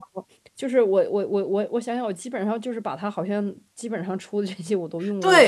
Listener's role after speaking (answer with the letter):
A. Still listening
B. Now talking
B